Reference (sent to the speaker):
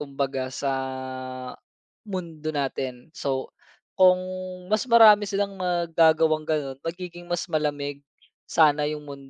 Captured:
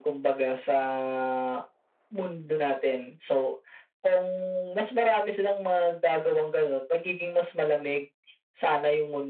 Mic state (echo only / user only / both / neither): echo only